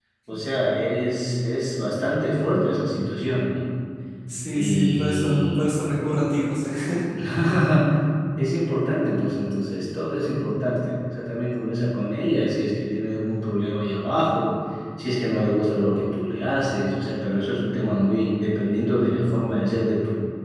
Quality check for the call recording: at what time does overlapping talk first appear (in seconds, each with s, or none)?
4.5 s